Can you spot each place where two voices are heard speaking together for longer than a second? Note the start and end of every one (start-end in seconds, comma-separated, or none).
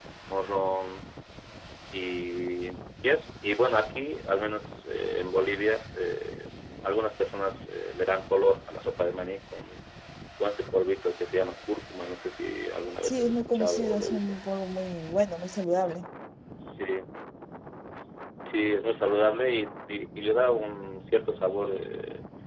13.0-14.4